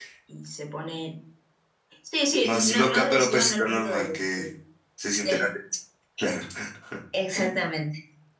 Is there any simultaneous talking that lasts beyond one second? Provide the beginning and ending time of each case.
2.4-4.4

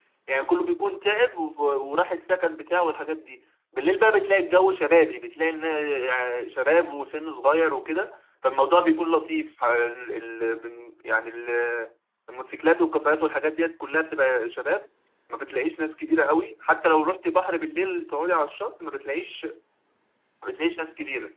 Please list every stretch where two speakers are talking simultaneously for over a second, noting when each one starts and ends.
none

